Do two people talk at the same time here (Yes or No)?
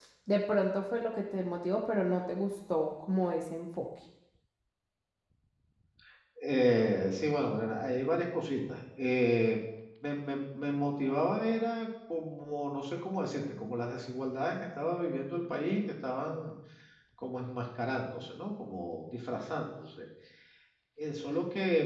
No